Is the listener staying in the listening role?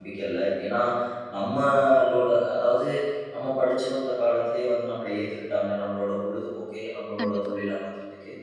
Yes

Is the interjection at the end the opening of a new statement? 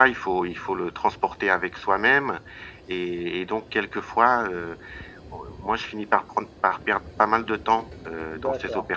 Yes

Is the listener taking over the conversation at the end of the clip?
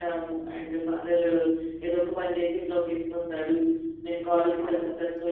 No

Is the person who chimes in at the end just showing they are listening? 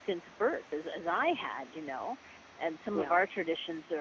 Yes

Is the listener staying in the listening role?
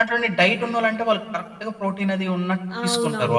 No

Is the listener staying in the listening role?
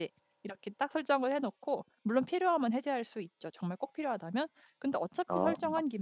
Yes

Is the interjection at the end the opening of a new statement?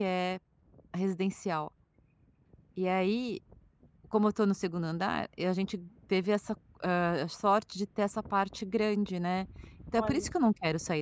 No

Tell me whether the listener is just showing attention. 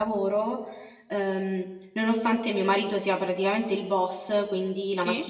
Yes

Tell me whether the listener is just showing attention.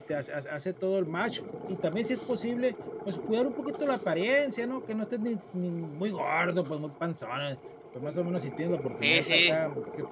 Yes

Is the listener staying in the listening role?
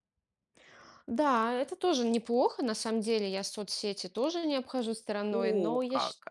No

